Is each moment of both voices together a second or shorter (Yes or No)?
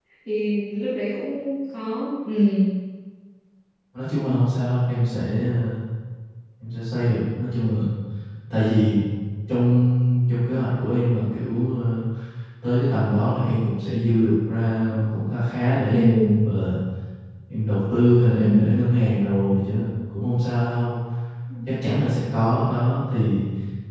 Yes